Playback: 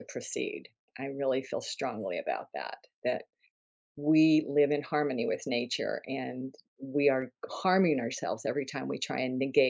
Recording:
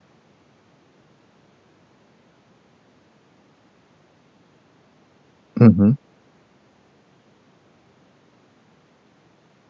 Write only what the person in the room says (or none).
mhm,